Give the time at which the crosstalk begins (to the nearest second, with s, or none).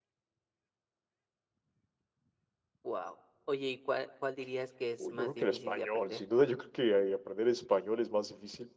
5 s